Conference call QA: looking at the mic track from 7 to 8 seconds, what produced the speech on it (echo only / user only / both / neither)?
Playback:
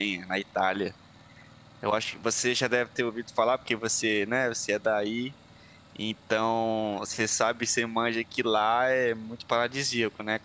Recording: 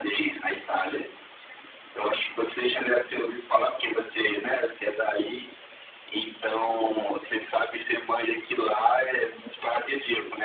echo only